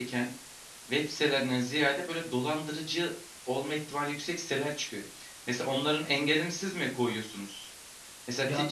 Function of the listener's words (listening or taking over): listening